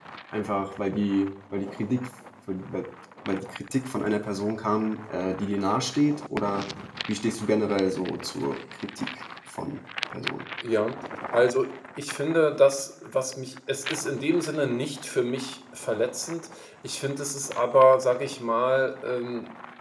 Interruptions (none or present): none